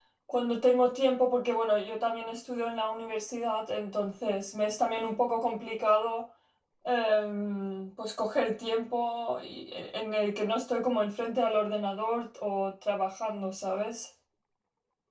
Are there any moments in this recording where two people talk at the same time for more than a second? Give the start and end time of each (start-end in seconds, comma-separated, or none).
none